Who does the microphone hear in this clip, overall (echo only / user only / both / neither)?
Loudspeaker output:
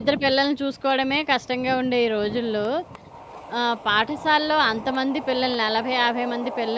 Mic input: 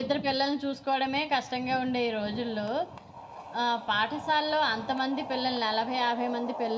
echo only